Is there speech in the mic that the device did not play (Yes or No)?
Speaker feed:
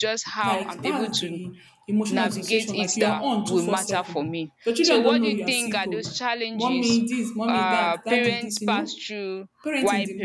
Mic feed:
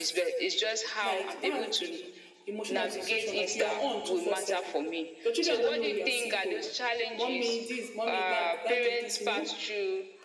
No